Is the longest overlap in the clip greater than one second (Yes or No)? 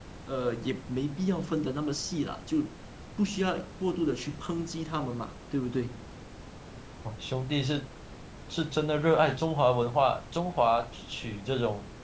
No